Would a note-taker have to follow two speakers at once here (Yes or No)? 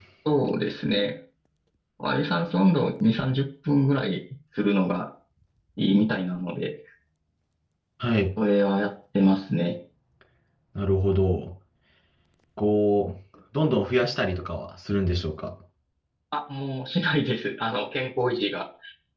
No